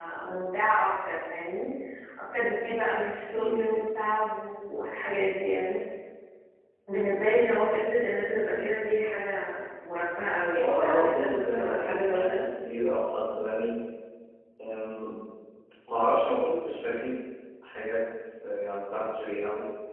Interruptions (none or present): present